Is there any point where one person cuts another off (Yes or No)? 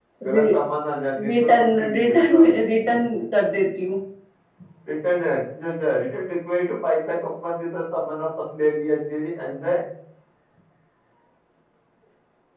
Yes